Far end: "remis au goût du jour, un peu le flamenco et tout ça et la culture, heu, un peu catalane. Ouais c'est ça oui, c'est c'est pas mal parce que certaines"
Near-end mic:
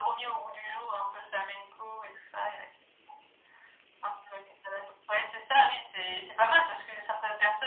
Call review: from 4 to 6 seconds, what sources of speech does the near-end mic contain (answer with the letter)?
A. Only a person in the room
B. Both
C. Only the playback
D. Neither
C